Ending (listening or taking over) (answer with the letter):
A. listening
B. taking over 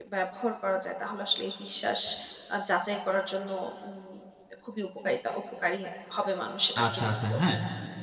B